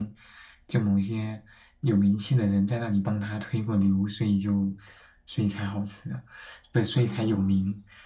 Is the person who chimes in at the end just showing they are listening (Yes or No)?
Yes